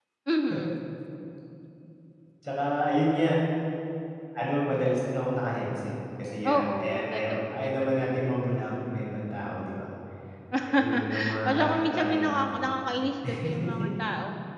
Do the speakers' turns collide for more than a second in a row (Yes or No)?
Yes